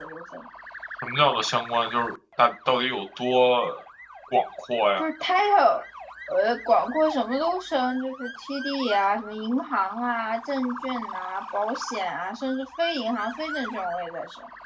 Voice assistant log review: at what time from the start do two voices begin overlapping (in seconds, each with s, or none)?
none